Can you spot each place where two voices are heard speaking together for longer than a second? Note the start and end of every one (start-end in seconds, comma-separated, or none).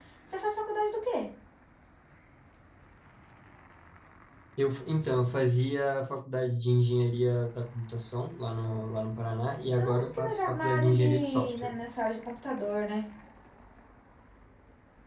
9.8-11.8